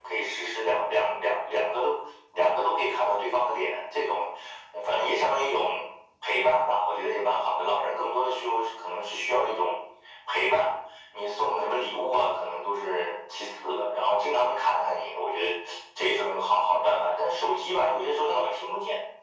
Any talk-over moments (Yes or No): No